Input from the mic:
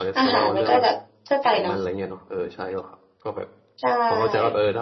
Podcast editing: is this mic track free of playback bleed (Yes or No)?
No